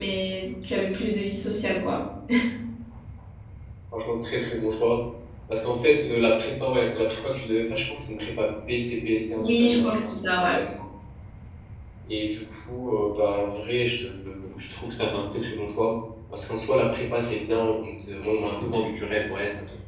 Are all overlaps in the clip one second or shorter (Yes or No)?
No